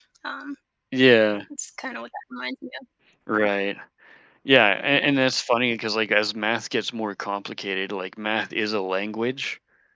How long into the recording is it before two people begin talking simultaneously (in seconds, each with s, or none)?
none